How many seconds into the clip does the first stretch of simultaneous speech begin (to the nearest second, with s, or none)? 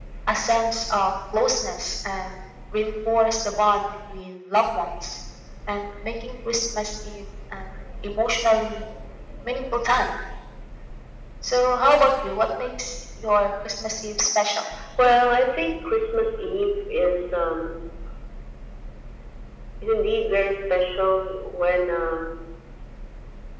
none